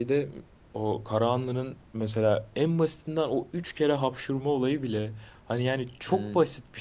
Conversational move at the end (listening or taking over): listening